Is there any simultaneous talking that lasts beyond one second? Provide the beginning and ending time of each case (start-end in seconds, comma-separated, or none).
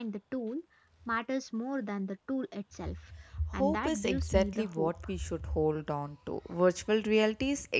3.6-4.9